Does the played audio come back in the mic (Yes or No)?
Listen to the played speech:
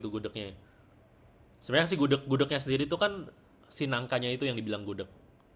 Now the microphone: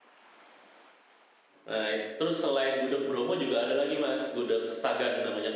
No